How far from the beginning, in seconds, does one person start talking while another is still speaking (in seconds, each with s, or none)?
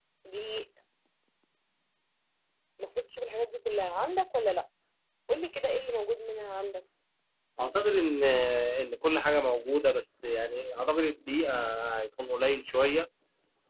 none